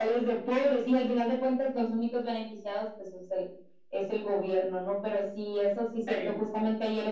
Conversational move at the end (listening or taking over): listening